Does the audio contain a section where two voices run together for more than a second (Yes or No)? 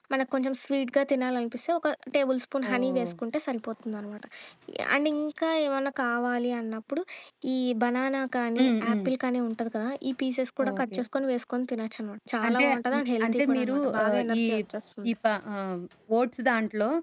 Yes